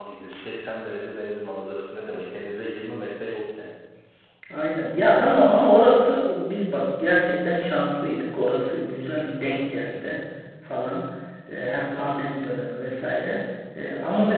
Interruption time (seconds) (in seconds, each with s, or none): none